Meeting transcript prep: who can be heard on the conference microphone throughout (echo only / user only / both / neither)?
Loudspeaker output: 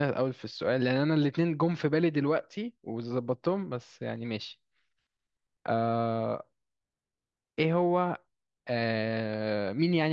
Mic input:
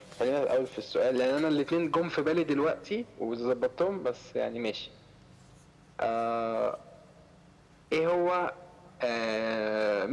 echo only